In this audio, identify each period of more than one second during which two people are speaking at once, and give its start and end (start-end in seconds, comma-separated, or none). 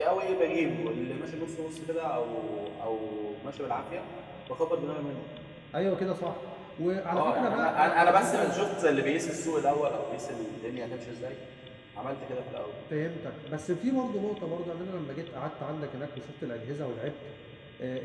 7.1-8.6